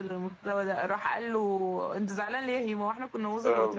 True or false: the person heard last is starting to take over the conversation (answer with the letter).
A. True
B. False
A